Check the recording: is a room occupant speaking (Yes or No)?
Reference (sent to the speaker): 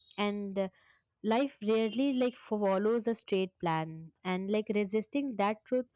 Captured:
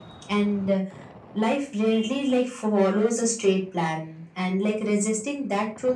No